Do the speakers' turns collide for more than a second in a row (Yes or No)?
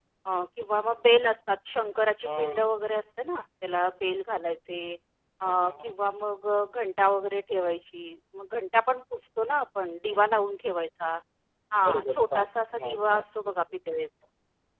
Yes